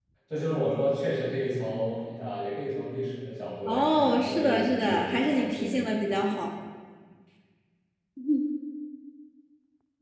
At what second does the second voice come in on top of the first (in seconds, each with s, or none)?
3.7 s